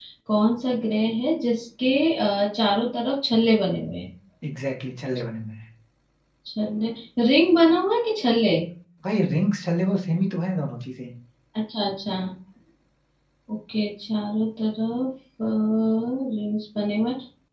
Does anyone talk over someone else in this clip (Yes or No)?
No